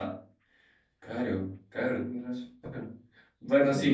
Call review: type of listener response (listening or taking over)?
listening